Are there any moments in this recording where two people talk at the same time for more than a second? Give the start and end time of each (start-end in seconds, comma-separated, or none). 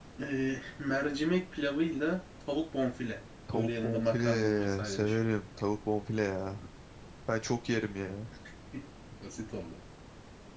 3.5-5.2